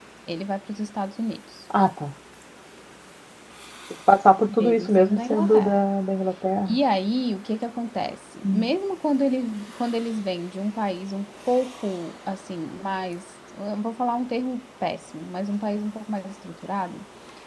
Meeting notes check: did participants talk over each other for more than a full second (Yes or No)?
Yes